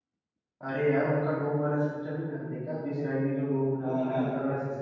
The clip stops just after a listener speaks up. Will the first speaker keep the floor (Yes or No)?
Yes